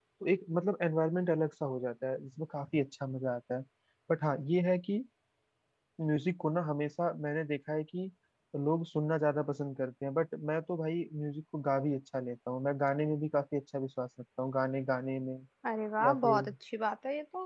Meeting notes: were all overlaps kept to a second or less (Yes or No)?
Yes